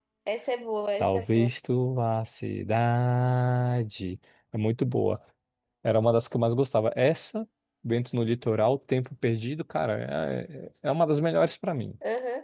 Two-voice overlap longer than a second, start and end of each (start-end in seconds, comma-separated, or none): none